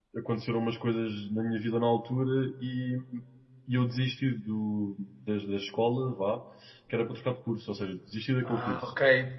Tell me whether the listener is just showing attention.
No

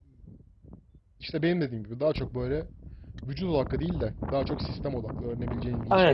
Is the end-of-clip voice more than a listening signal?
Yes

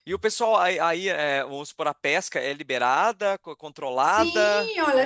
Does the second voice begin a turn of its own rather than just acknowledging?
Yes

